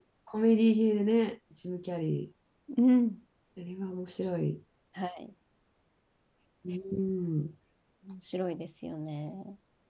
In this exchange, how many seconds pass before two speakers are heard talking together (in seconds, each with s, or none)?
none